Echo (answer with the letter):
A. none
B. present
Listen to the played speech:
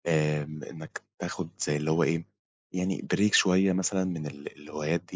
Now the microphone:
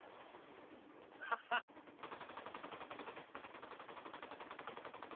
A